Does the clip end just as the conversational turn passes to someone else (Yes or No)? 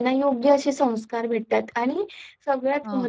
No